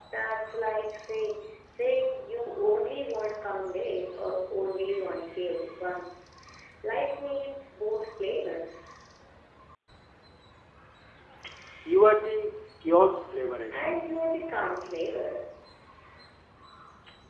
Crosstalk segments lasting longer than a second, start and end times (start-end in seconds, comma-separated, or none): none